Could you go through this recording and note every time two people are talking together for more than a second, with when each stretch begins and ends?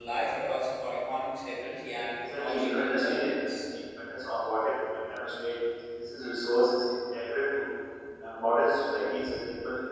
2.2-3.6

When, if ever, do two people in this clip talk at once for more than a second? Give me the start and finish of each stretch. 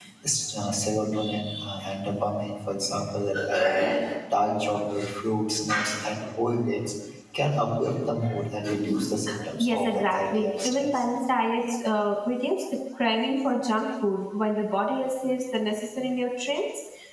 9.6-11.0

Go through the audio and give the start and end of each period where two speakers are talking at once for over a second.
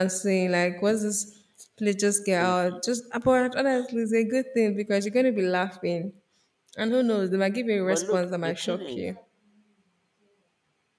7.8-9.1

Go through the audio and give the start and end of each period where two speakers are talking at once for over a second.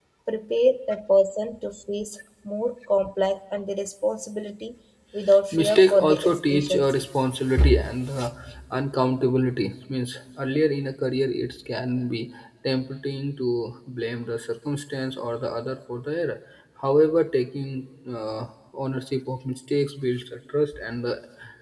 5.5-6.9

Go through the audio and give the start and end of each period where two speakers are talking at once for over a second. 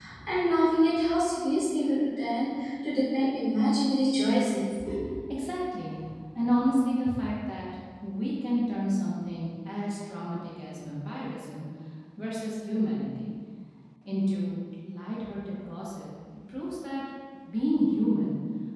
none

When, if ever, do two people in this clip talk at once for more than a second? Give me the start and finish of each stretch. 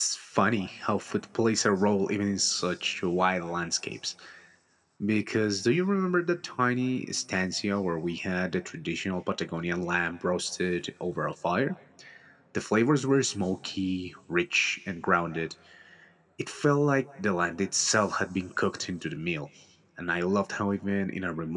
none

